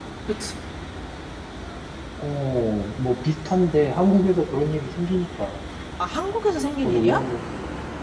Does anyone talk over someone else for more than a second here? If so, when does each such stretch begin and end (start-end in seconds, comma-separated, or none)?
none